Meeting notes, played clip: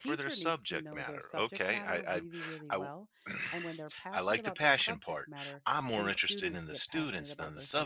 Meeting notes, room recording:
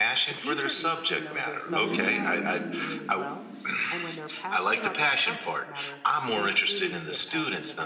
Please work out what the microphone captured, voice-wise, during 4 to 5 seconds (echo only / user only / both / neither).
echo only